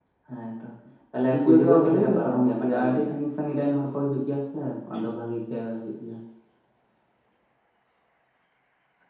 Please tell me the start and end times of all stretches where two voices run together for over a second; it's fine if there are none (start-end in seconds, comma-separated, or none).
1.3-3.1